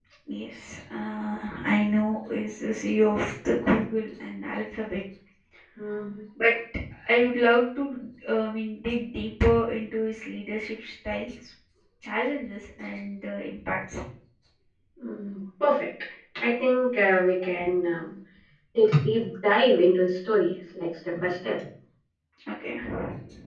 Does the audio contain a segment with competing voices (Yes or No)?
No